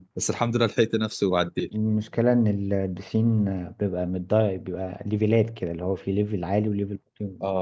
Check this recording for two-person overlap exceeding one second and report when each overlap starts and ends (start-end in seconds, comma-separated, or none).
none